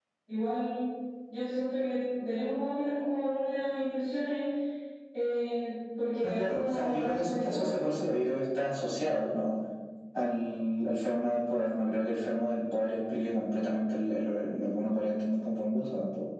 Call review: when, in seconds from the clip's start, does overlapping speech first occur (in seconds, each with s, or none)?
6.2 s